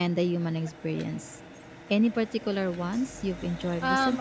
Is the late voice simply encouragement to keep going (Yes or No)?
No